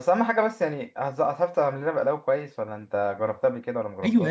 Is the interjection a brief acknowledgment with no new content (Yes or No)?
No